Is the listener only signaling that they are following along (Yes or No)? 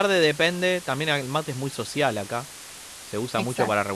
Yes